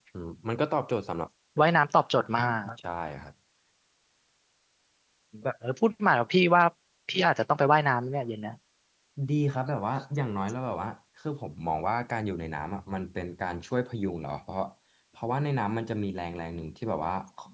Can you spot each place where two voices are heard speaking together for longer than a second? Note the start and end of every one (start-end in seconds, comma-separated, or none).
none